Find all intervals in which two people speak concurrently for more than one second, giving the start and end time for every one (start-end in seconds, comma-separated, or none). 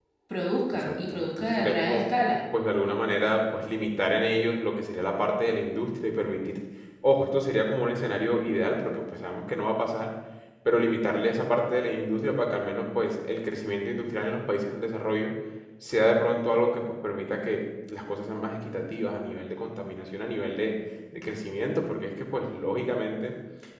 0.7-2.0